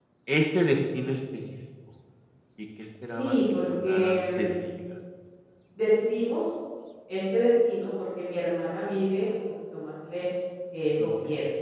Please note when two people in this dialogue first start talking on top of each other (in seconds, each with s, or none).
3.1 s